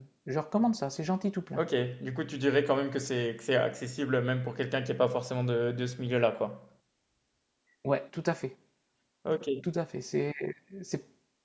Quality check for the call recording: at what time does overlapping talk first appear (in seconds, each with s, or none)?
none